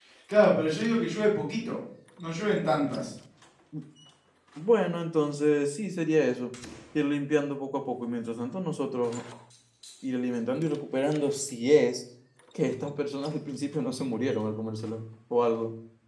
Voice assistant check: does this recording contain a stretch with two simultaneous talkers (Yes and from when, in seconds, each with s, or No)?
No